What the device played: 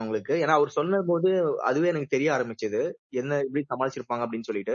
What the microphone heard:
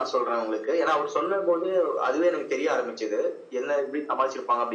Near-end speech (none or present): none